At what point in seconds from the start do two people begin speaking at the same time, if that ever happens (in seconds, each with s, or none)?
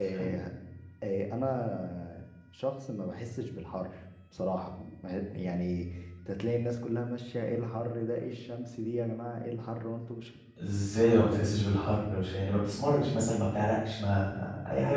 none